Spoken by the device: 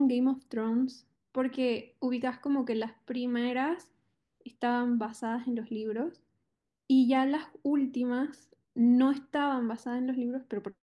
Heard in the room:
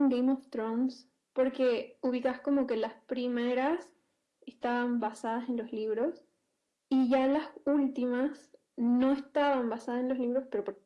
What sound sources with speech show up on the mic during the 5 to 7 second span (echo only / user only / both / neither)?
echo only